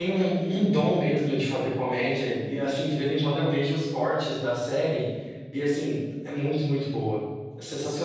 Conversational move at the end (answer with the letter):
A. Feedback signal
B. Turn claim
B